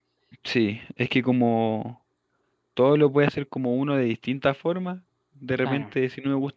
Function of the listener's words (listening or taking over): listening